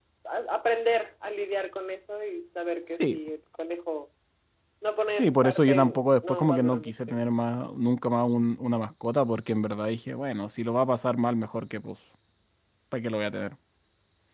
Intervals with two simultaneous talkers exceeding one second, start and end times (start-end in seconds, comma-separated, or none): 5.2-7.2